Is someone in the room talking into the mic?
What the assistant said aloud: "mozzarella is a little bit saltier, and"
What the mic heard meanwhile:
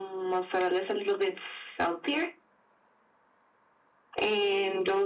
No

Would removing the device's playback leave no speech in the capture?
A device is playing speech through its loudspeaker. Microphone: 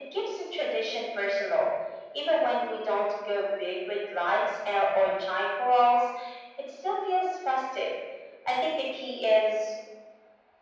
Yes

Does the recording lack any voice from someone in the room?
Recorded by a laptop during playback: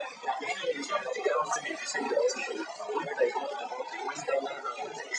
Yes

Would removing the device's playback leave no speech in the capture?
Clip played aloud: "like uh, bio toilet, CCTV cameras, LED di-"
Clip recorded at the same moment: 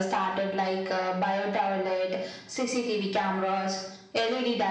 Yes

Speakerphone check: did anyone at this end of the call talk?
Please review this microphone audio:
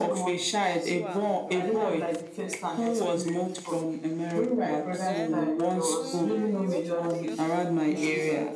Yes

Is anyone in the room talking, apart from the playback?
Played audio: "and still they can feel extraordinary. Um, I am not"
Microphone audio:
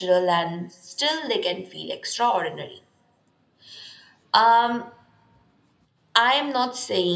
No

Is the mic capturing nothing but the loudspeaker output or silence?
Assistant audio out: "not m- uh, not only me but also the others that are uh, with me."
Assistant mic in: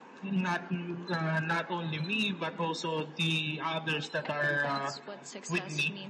No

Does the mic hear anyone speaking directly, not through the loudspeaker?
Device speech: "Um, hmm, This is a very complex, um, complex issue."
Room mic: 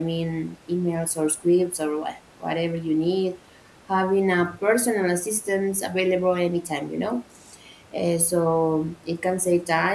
Yes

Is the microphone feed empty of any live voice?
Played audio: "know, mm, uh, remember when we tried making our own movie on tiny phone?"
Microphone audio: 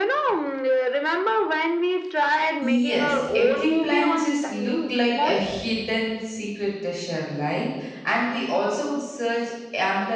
No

